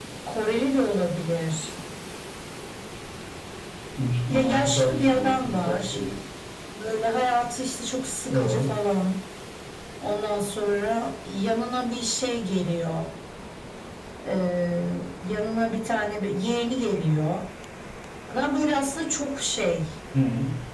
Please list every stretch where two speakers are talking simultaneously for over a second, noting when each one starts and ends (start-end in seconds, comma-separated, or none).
4.3-6.0